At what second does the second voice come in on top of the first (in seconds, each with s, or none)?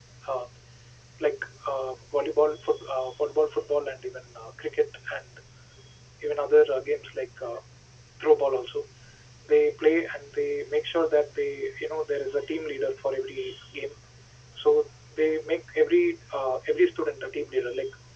none